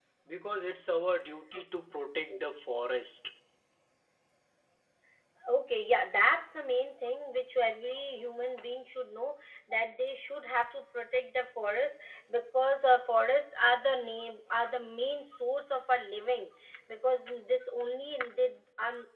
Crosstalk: none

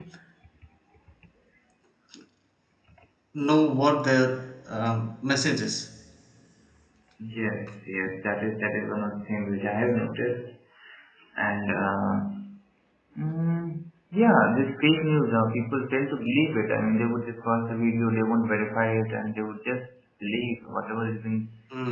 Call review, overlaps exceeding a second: none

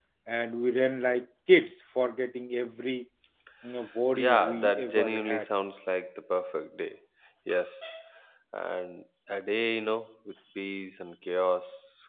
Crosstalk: present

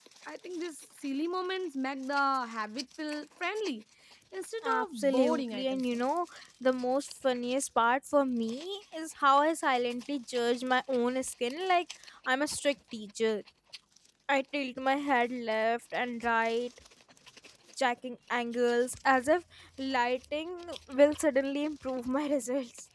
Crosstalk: present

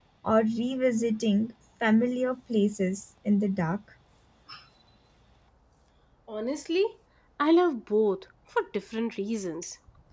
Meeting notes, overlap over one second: none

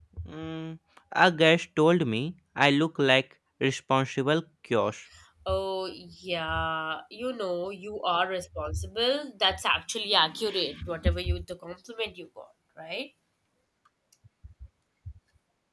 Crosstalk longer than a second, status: none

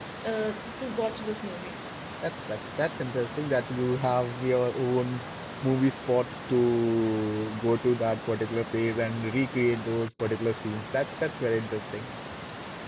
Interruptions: none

